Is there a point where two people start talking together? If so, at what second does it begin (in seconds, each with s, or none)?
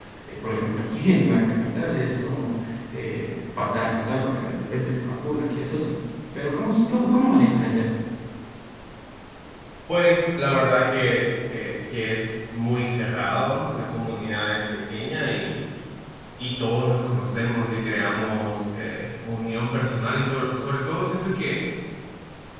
none